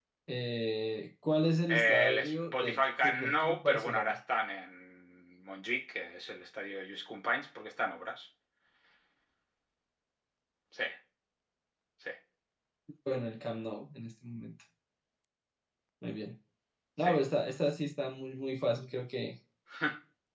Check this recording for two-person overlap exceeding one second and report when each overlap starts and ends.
1.7-4.2

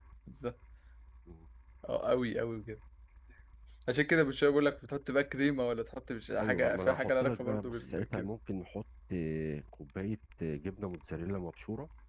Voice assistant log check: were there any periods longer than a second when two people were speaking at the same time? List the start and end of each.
6.4-8.3

